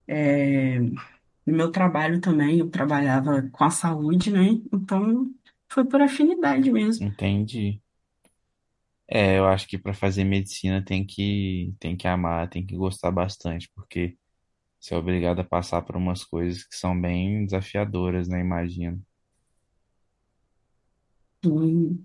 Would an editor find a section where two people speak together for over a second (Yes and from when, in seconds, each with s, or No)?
No